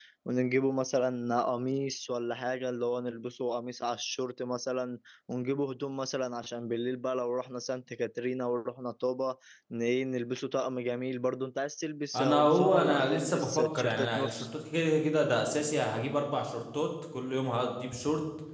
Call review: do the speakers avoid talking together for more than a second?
No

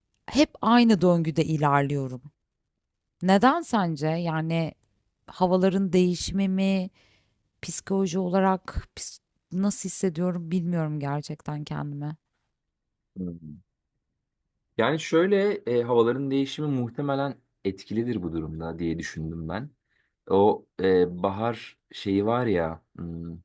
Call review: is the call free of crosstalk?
Yes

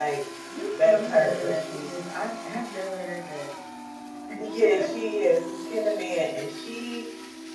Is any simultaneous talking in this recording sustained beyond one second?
Yes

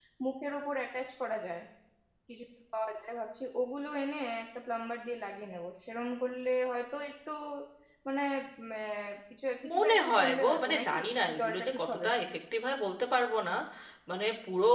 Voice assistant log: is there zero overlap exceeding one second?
No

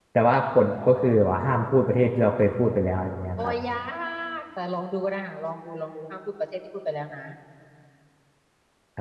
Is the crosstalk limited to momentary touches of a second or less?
Yes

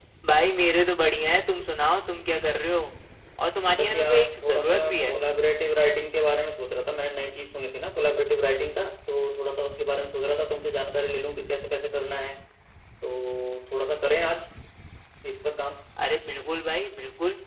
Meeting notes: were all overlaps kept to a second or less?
No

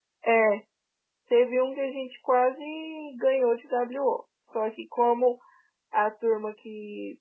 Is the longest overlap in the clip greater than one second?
No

